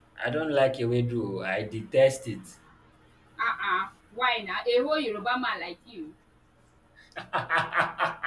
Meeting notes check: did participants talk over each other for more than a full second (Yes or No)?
No